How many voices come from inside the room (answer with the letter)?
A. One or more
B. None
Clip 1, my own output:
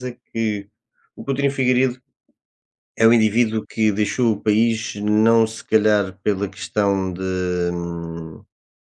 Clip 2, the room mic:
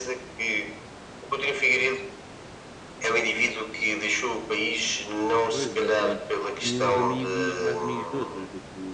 A